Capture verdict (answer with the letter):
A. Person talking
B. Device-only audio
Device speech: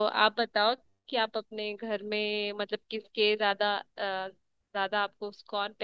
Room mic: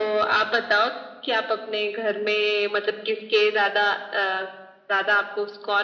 B